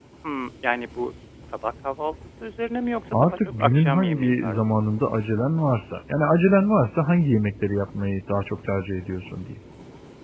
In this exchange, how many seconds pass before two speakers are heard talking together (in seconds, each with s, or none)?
3.1 s